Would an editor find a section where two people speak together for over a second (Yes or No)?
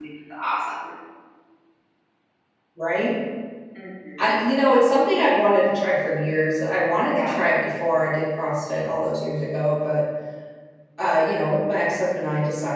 No